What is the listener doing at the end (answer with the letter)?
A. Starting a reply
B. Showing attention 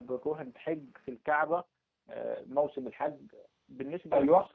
B